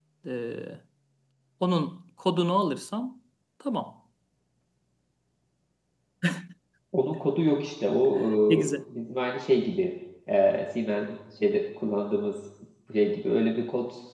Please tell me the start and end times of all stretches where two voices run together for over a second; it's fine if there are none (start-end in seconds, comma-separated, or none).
none